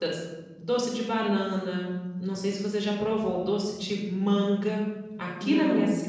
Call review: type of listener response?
listening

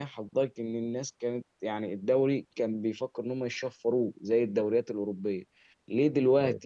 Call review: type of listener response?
listening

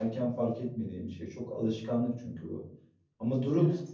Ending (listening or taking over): listening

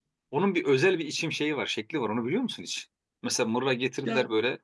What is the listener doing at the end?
listening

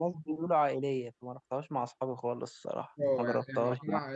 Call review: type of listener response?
taking over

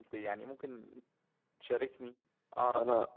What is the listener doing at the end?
taking over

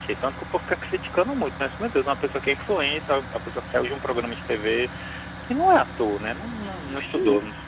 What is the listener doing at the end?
listening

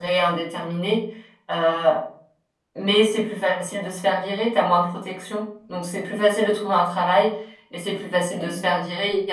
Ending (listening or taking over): listening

